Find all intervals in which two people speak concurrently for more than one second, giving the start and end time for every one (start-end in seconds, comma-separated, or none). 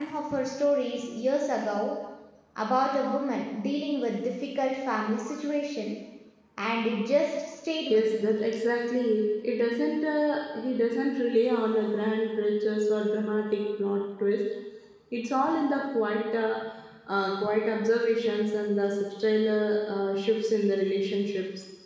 none